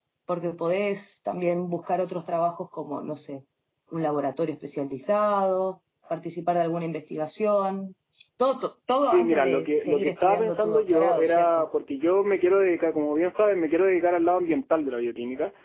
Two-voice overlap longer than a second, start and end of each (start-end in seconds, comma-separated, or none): 9.1-11.6